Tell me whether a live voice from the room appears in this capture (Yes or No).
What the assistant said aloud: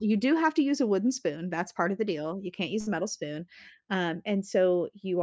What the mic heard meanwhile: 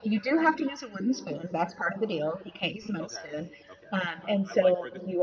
Yes